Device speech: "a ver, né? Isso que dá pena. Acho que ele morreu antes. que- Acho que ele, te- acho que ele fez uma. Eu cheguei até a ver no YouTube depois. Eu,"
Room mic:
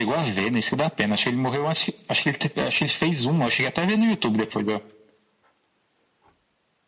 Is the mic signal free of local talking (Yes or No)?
Yes